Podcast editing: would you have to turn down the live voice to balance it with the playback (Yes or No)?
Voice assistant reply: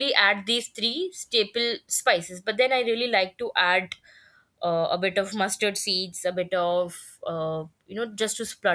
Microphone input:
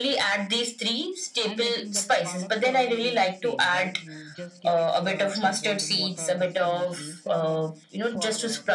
No